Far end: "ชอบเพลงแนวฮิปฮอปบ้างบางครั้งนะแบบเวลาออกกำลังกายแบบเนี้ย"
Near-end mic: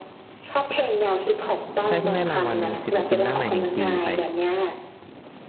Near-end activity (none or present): present